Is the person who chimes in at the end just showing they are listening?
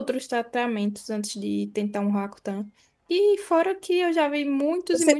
Yes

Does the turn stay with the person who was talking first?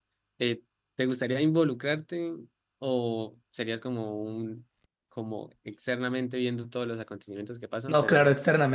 No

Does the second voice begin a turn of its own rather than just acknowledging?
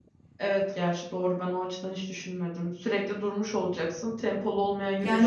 Yes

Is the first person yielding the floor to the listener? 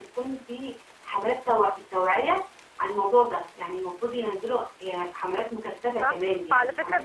Yes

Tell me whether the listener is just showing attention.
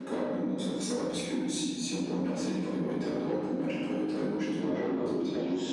No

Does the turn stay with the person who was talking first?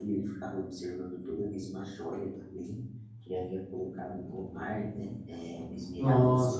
No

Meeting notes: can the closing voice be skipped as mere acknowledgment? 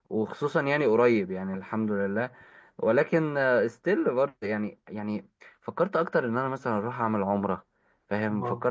Yes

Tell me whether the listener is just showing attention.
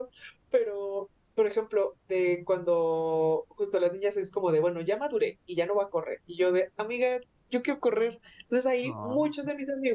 Yes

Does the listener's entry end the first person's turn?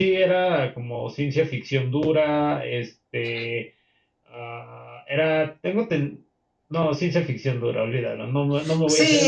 Yes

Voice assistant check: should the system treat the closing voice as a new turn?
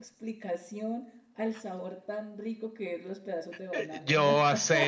Yes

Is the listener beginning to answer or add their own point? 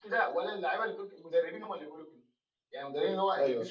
No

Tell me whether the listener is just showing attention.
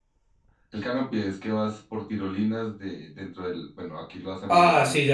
No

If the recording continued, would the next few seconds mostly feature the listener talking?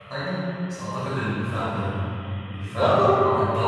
No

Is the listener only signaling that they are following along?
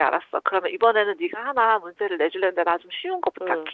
No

